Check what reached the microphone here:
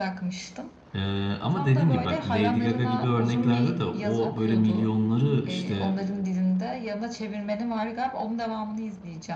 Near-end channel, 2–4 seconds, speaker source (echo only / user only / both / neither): both